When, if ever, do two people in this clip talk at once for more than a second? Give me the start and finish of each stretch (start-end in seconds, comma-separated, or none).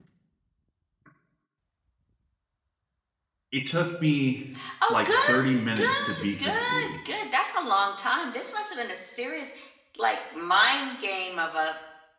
4.9-7.0